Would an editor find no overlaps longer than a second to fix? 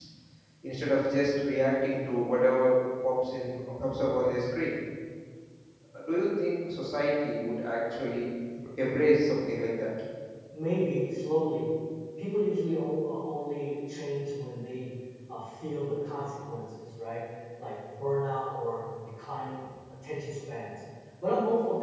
Yes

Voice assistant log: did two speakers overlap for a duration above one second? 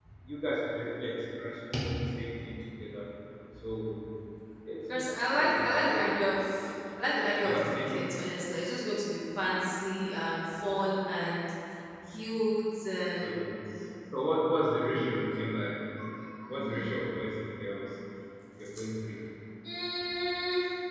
Yes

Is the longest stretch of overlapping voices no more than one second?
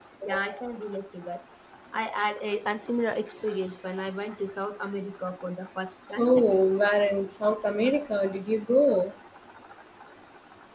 Yes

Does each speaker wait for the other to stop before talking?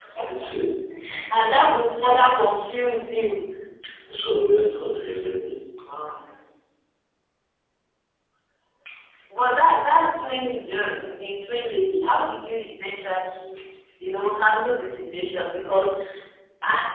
Yes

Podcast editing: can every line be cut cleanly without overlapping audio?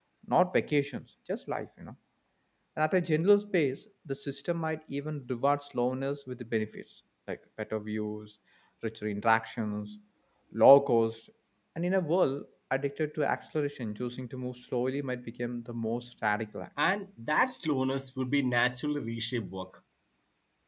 Yes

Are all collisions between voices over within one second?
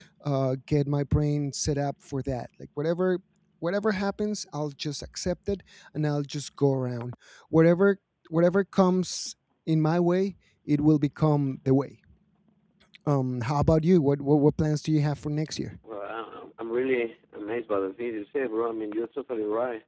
Yes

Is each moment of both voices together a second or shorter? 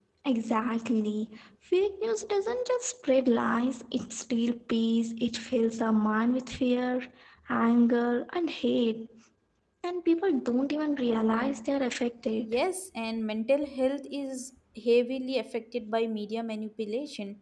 Yes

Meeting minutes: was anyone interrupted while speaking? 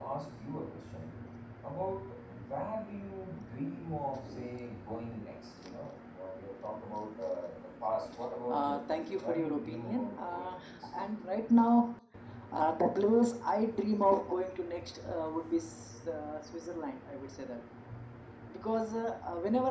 Yes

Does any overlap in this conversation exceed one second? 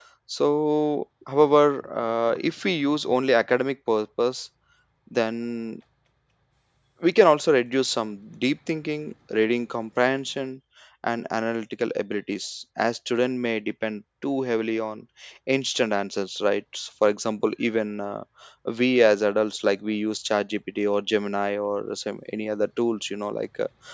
No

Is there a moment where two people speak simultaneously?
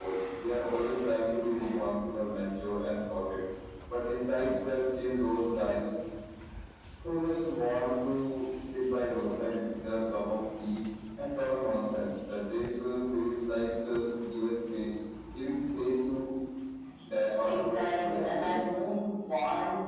Yes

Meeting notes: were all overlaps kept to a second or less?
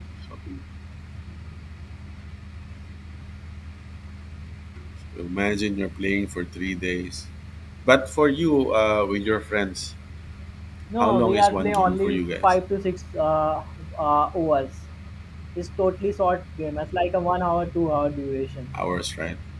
No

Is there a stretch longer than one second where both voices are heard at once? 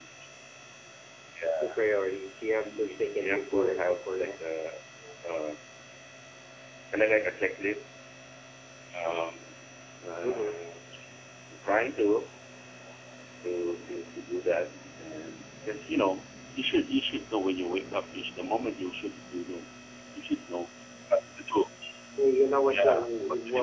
Yes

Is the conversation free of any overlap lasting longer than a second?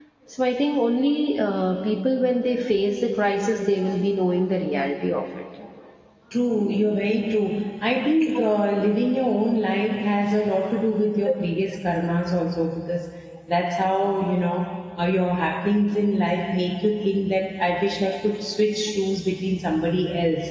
Yes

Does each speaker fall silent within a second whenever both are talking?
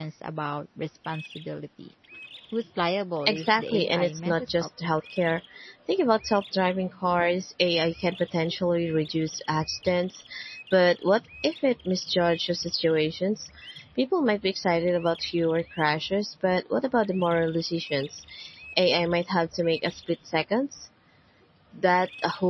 No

